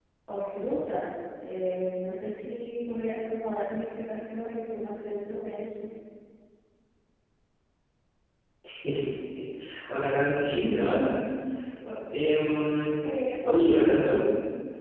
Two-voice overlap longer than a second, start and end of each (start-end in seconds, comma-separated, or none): none